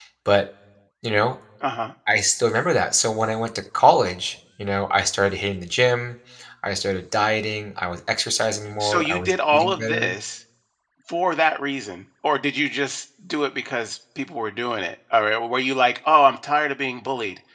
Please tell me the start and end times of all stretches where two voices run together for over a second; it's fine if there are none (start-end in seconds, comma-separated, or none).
8.8-10.1